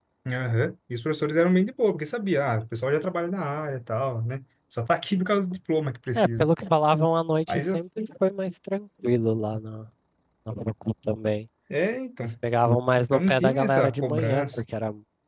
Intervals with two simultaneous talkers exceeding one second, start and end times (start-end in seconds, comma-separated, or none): 13.1-14.6